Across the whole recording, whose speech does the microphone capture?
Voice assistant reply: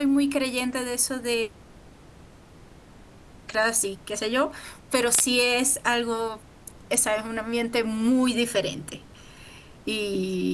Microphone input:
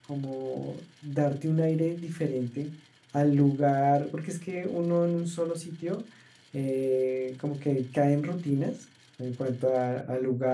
user only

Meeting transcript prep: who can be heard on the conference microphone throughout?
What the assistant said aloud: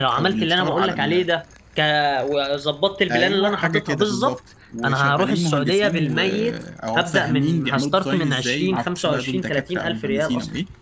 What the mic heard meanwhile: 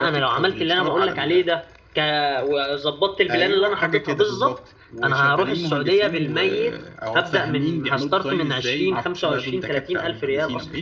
echo only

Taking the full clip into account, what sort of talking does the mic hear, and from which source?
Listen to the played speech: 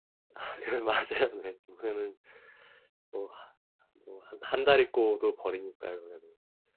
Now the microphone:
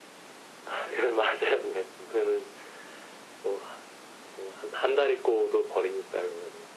echo only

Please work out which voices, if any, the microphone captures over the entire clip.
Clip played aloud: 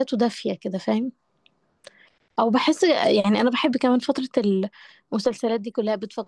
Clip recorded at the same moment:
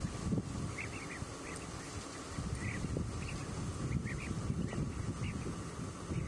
neither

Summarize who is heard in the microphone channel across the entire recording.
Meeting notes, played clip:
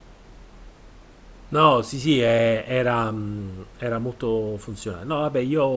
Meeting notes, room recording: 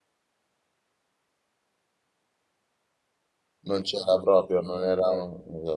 user only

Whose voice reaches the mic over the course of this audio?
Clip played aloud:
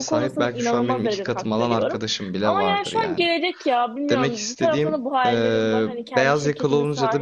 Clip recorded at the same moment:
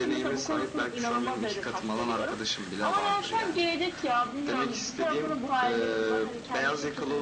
echo only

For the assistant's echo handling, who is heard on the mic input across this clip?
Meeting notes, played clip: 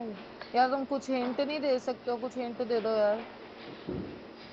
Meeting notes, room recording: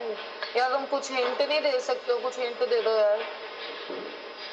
echo only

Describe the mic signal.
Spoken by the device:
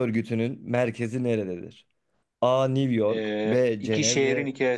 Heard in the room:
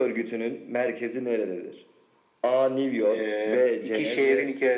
echo only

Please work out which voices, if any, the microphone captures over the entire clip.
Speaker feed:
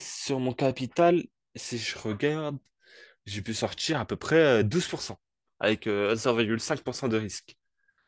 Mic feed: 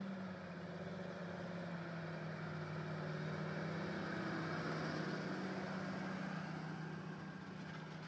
neither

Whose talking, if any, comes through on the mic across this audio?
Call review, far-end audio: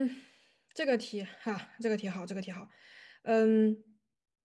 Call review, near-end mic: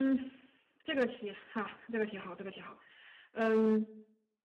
echo only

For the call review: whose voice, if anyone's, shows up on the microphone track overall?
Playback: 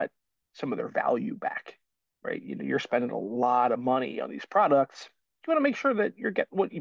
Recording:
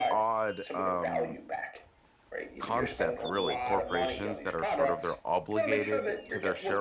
both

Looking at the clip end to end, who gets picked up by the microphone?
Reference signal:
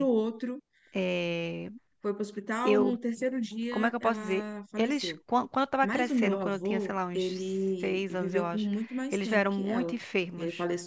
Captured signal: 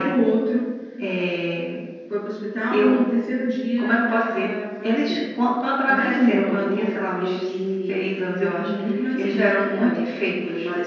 both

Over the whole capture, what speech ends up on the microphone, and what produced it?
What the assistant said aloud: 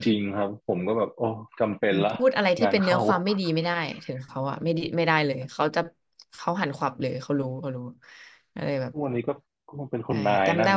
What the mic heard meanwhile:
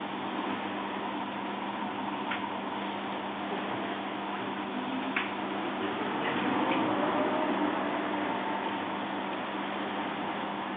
neither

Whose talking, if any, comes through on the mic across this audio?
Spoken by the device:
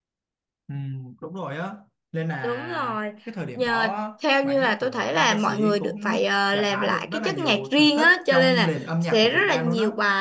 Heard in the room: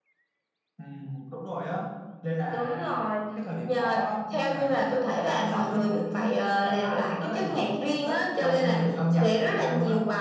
both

